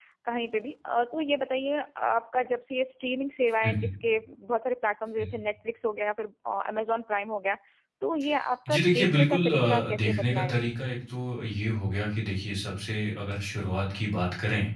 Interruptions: present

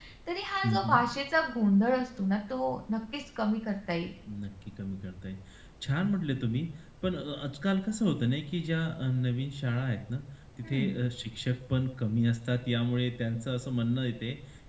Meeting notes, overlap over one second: none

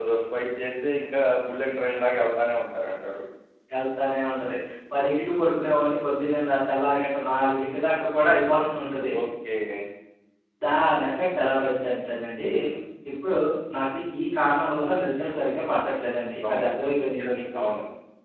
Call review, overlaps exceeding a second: none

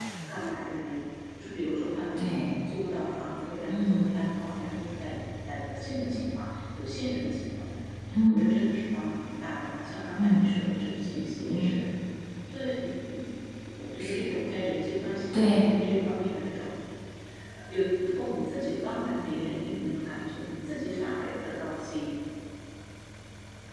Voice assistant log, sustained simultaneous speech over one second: none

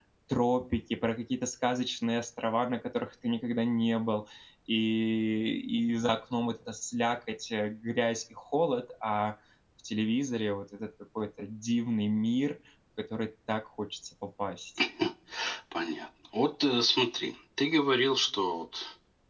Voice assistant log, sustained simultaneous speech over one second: none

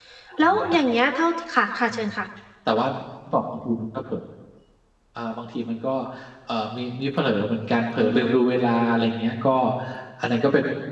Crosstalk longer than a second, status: none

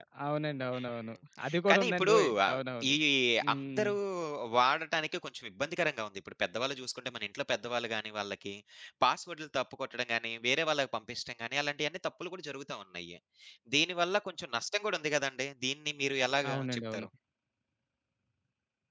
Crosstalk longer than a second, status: present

